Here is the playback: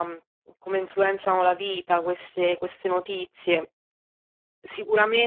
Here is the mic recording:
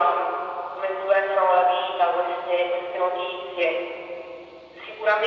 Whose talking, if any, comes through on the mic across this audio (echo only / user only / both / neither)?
echo only